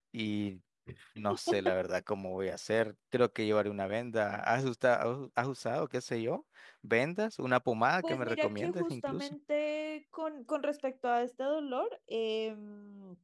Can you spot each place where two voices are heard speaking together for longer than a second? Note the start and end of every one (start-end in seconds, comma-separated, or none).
8.0-9.3